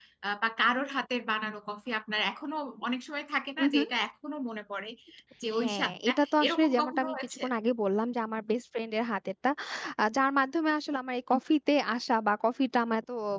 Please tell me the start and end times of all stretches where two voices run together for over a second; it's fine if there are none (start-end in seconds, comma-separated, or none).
5.6-7.4